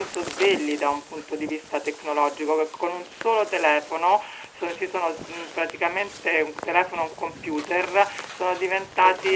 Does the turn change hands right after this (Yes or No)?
No